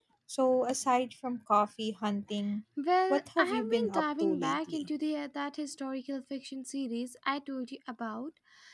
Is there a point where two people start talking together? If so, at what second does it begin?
3 s

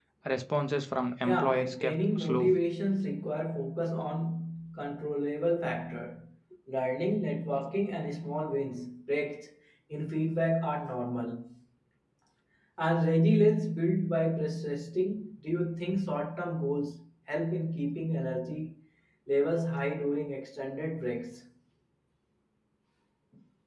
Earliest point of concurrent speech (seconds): 1 s

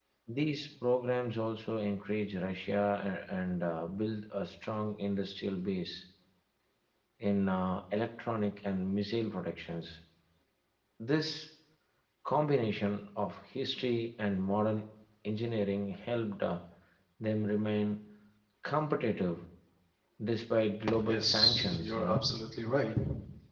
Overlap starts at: 21 s

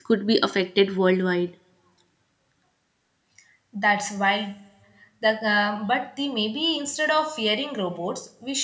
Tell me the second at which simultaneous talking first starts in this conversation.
none

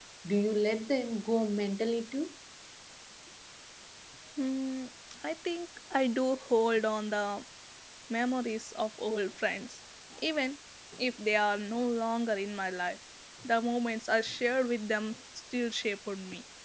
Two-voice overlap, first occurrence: none

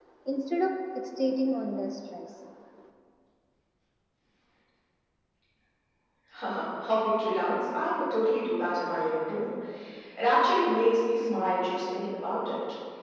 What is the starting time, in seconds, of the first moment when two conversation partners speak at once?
none

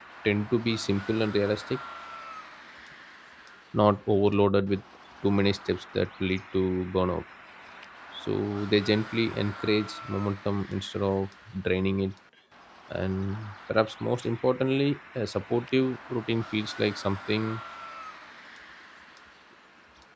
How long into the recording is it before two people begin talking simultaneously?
none

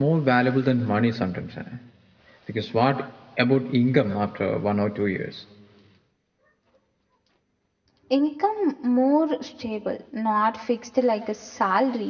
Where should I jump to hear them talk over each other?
none

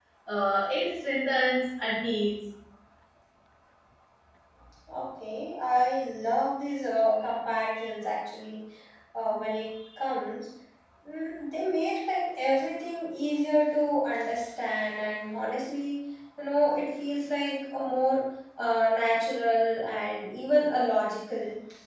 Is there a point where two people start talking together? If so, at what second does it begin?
none

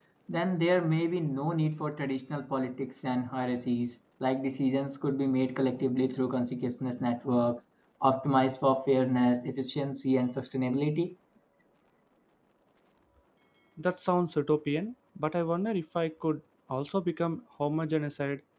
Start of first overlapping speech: none

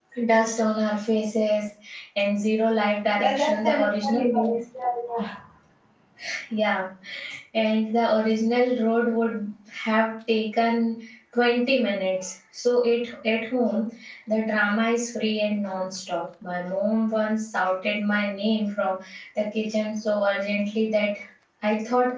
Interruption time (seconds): 3 s

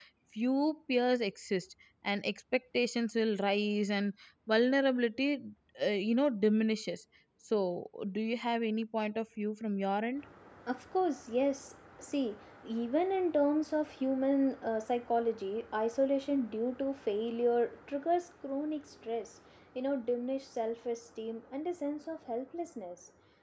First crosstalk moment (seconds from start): none

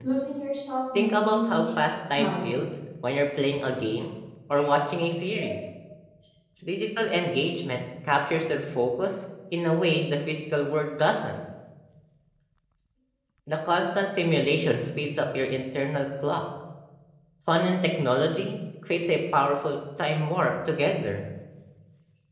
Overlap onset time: 1 s

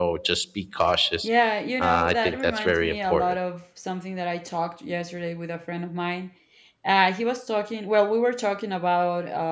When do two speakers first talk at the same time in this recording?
2 s

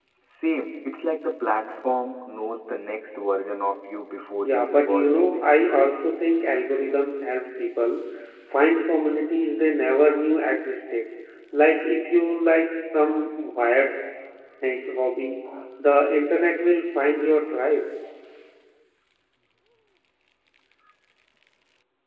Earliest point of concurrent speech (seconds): 4 s

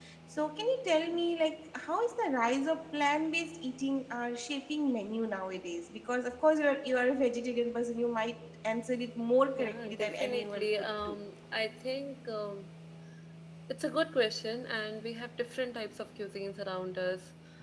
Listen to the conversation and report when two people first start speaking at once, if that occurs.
10 s

